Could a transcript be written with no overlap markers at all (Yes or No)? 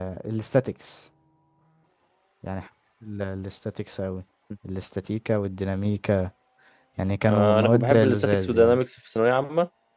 No